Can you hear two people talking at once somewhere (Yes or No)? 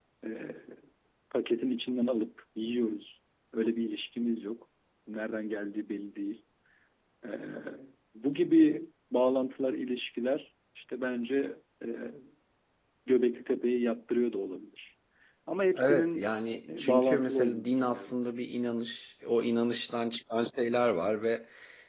Yes